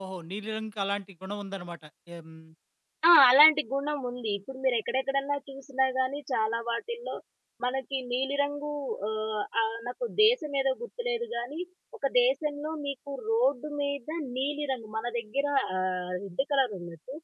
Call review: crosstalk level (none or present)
none